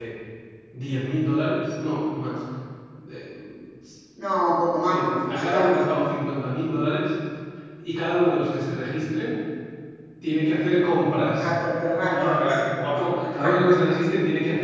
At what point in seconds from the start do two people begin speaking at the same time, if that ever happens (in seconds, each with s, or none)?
4.9 s